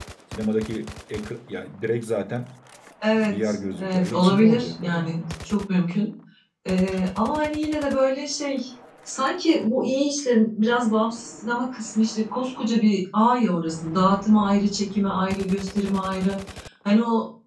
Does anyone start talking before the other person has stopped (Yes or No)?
Yes